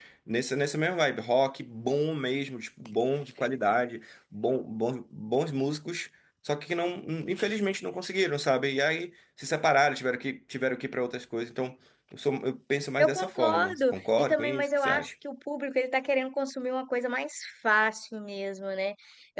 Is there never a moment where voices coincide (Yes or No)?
No